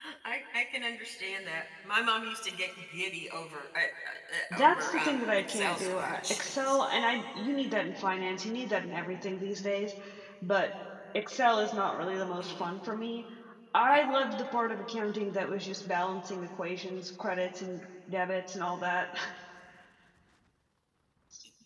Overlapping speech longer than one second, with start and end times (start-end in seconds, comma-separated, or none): 4.5-6.8